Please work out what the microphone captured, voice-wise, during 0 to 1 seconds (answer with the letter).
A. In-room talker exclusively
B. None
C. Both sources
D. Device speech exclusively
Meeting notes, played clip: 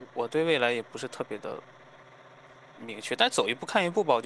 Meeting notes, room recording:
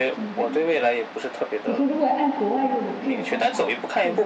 C